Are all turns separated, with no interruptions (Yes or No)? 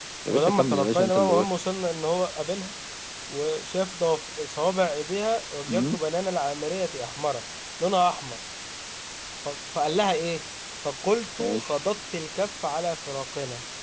No